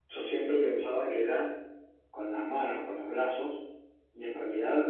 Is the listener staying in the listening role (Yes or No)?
Yes